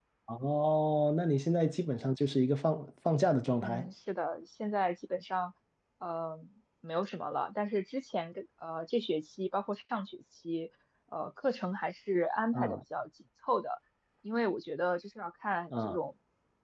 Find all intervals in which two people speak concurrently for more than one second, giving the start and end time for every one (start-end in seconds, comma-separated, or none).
none